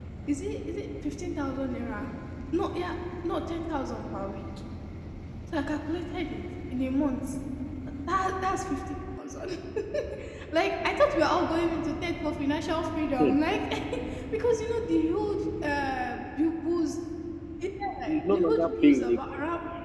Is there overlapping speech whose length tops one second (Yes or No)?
Yes